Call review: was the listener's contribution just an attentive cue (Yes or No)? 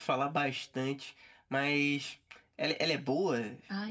No